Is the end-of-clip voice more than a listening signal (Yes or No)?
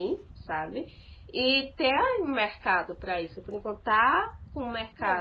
Yes